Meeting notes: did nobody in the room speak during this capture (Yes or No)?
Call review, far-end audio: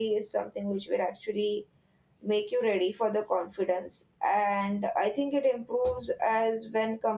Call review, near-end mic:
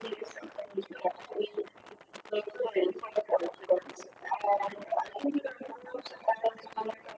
Yes